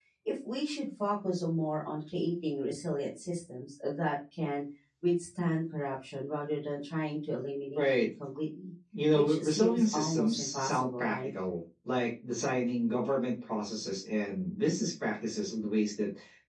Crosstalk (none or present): present